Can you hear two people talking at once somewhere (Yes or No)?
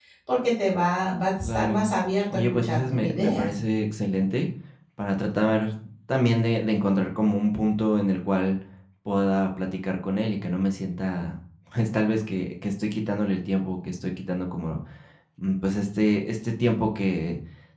Yes